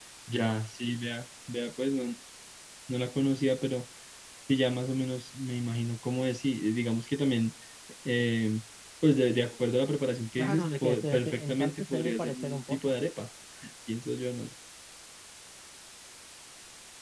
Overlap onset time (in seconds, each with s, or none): 10.4 s